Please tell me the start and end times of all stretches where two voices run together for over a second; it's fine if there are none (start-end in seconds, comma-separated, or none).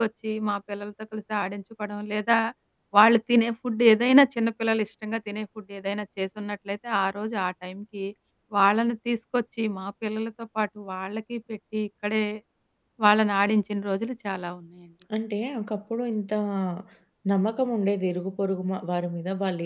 none